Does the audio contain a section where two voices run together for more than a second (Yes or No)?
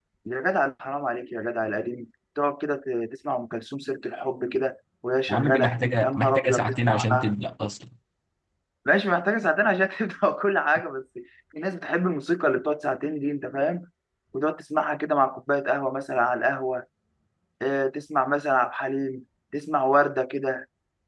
Yes